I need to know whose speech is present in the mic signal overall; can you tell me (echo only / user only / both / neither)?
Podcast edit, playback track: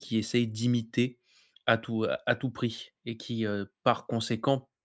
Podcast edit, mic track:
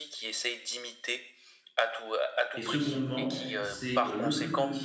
both